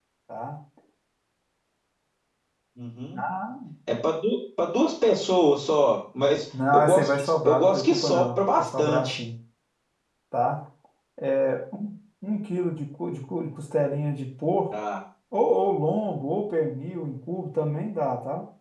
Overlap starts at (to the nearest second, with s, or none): 7 s